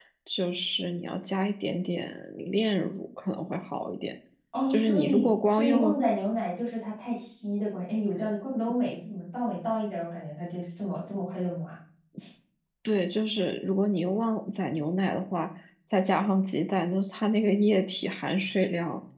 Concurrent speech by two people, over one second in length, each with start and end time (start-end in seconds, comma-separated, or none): 4.7-6.0